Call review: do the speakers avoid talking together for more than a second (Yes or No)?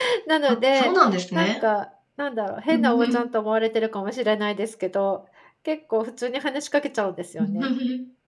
Yes